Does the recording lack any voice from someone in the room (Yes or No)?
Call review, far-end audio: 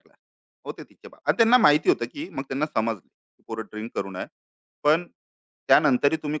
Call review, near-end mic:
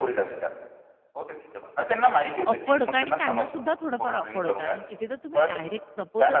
No